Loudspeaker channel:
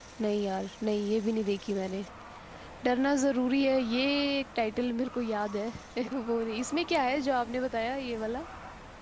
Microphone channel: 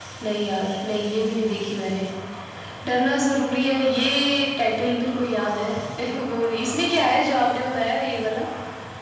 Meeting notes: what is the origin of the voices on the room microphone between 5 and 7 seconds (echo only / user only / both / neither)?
echo only